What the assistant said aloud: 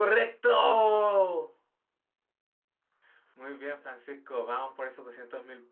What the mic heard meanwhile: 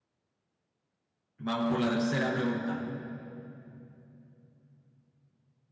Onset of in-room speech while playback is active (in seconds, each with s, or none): 1.4 s